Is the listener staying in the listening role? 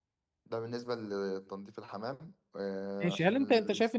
No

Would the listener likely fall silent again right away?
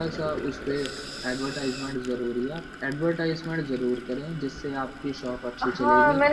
No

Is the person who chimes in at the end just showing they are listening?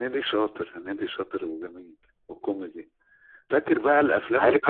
Yes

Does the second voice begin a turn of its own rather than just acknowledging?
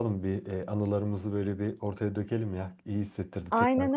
Yes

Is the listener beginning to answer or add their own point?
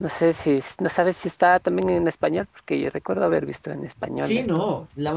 Yes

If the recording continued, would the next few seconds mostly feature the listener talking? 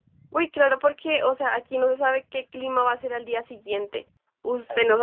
No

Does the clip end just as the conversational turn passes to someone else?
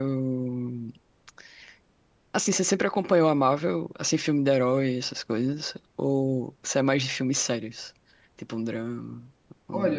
Yes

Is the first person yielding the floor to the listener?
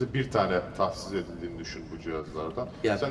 No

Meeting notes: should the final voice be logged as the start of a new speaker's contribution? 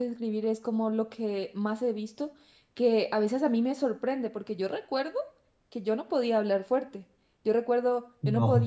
No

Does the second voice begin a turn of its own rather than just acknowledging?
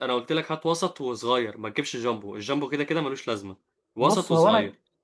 Yes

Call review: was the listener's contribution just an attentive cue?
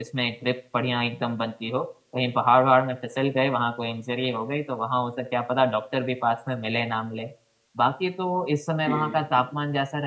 Yes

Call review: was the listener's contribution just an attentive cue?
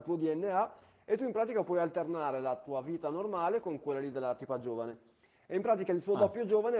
Yes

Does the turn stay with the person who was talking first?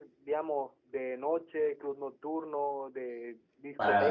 No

